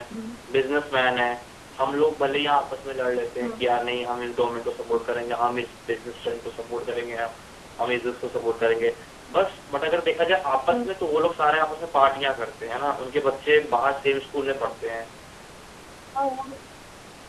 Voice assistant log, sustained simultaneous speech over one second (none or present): none